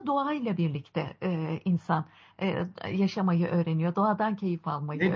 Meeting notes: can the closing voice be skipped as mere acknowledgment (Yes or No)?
No